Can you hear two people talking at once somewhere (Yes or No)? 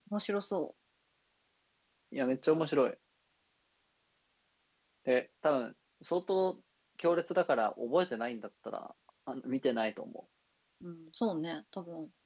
No